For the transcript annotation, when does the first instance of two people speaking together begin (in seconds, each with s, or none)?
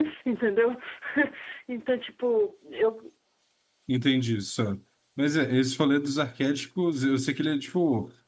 none